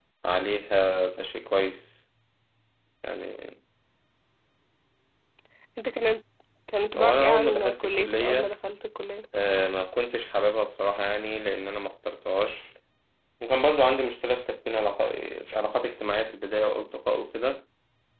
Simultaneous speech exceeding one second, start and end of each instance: 7.0-8.5

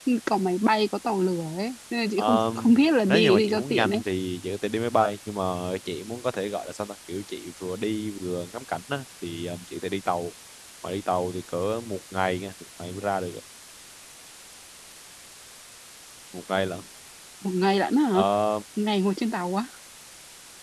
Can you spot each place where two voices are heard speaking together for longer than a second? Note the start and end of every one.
2.2-4.0

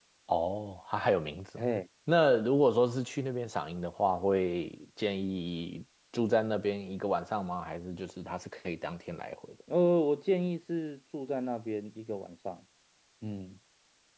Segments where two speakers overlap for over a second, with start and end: none

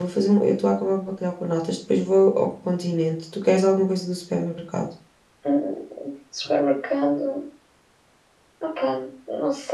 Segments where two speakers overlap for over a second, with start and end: none

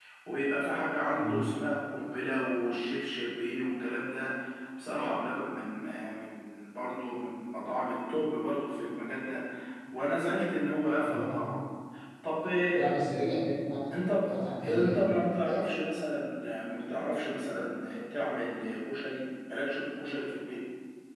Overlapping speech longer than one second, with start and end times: none

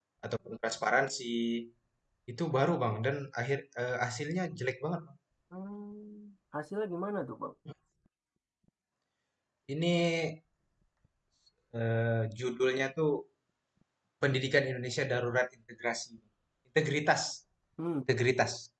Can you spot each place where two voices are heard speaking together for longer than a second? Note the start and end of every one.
none

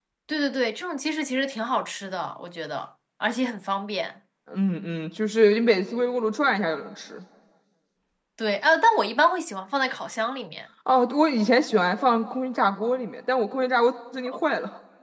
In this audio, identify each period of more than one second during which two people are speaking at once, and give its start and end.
none

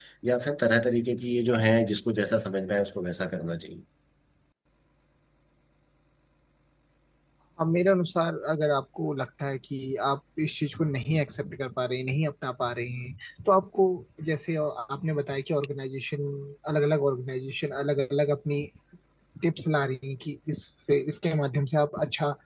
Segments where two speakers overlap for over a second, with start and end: none

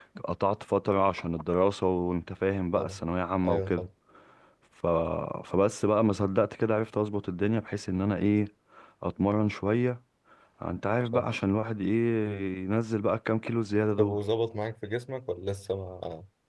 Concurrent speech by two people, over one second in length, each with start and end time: none

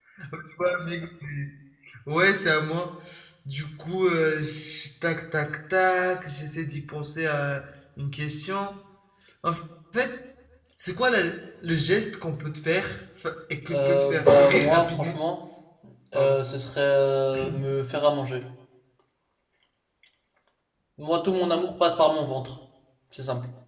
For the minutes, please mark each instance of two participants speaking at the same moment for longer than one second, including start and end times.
13.7-15.2

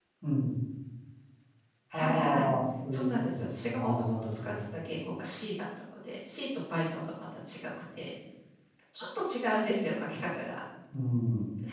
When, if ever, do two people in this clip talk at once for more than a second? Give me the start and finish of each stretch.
2.9-4.5

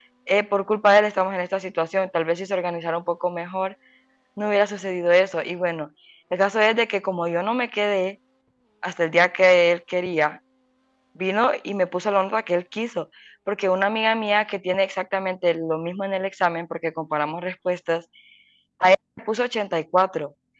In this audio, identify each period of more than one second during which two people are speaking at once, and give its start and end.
none

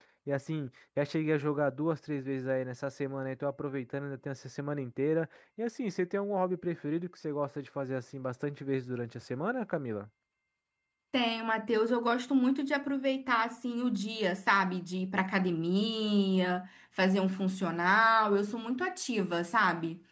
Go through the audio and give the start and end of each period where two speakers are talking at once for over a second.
none

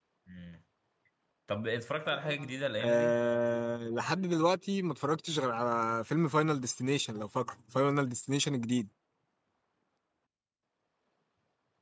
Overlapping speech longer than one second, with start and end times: none

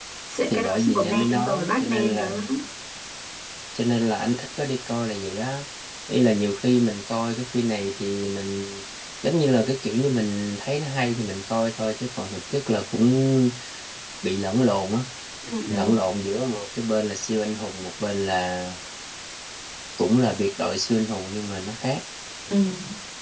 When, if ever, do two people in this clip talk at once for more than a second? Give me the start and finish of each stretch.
0.5-2.3

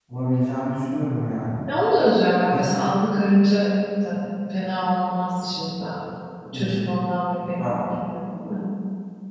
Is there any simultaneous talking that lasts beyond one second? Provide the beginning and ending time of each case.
none

